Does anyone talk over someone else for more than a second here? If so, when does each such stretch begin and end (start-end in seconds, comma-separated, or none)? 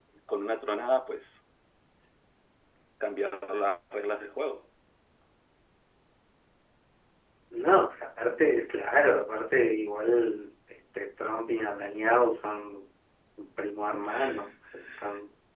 none